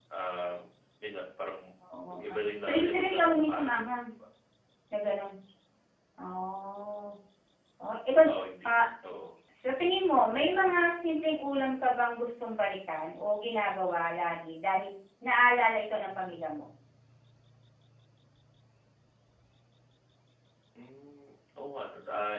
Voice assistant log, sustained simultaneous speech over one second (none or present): present